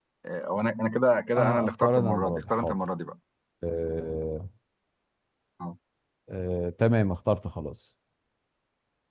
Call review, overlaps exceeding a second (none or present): present